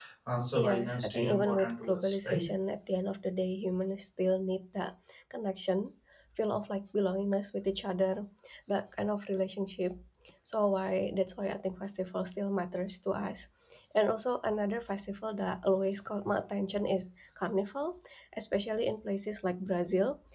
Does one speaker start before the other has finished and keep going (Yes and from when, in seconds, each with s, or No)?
Yes, from 0.6 s